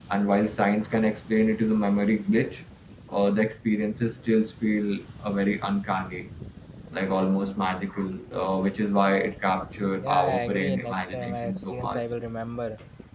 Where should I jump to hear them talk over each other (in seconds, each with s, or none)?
10.0 s